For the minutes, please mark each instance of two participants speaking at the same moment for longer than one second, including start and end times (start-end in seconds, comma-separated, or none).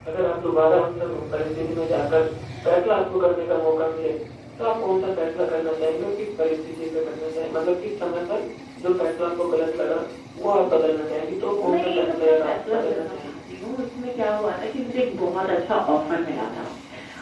11.7-13.4